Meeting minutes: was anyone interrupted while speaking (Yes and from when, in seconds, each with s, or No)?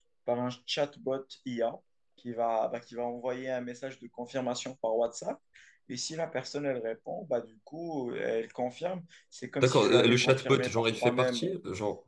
Yes, from 9.6 s